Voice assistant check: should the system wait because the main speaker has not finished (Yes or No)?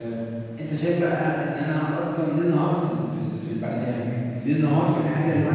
No